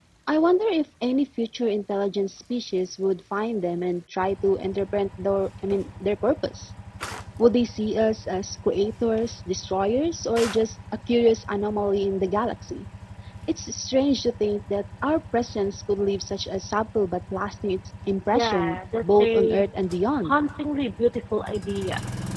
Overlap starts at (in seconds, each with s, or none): 18.3 s